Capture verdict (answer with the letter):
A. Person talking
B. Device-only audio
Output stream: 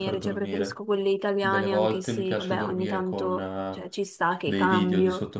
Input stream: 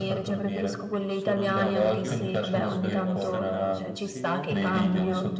A